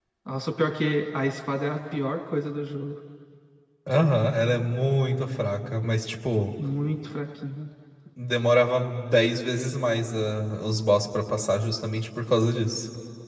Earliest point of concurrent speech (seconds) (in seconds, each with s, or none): none